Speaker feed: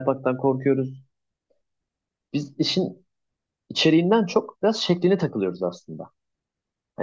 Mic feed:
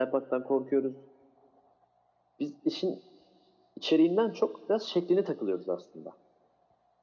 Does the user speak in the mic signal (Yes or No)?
No